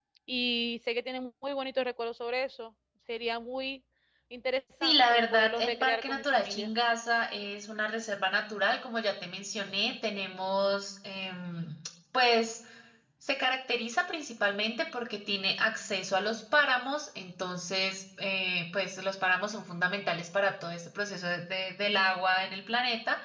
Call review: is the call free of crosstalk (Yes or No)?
No